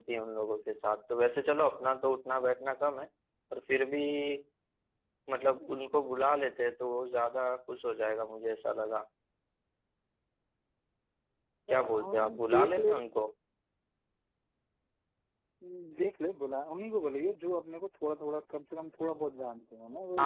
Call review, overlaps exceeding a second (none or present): present